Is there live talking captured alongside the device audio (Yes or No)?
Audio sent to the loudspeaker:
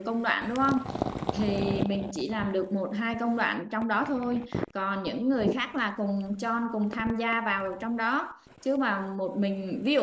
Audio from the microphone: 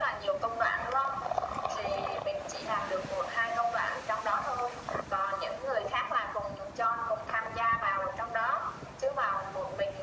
No